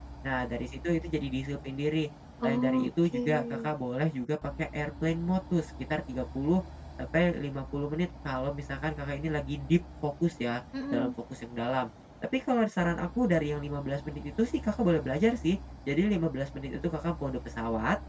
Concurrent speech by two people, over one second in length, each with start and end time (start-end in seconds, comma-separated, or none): 2.4-3.7